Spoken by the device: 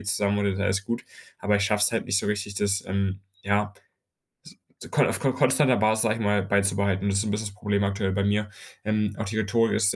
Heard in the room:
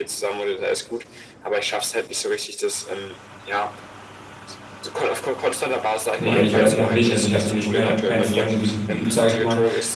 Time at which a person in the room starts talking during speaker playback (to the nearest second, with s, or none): 6 s